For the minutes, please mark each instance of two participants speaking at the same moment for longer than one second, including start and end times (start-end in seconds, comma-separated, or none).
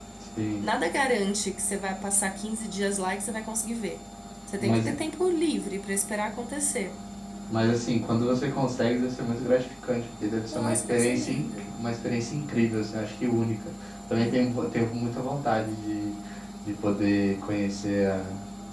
10.5-11.7